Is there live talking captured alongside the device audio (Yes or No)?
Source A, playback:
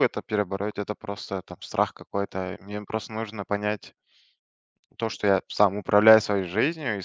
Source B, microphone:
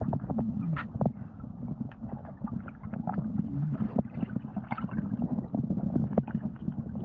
No